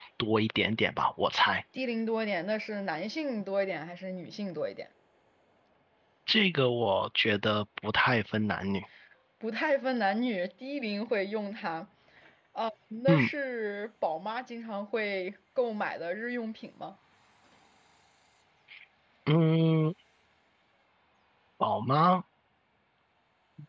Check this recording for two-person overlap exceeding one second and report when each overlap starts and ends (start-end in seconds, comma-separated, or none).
none